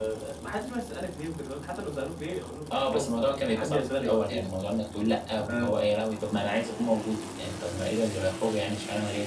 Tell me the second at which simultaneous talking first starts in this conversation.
2.7 s

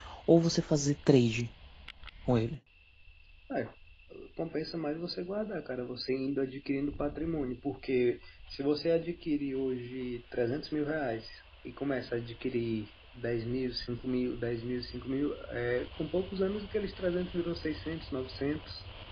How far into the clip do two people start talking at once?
none

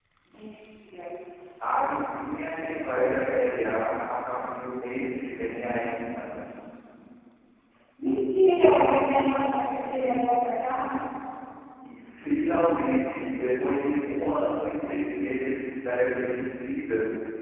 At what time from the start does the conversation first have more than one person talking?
none

